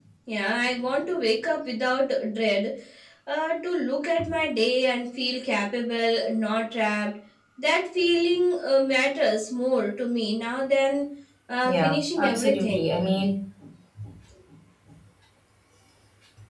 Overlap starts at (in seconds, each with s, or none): 11.7 s